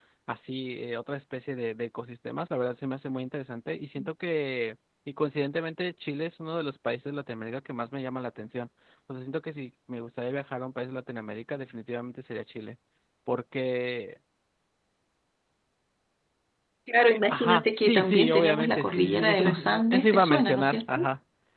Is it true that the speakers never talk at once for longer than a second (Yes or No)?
No